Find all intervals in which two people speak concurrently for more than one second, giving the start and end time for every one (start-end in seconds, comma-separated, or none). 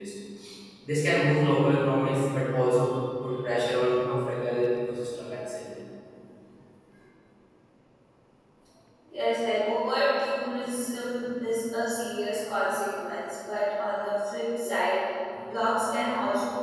none